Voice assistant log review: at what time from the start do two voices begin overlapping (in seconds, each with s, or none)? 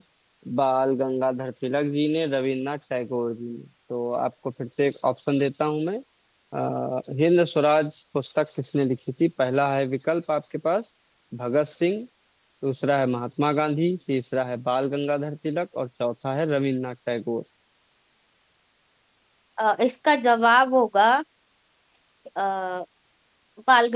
none